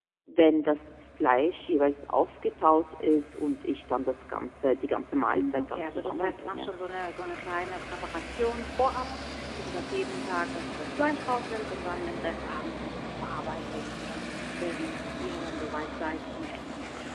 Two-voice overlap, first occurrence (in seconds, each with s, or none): 5.3 s